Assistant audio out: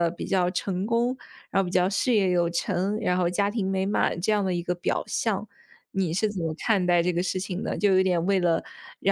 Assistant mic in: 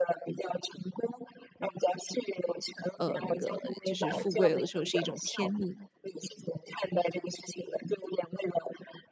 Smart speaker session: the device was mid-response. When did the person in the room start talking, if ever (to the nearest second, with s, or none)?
3 s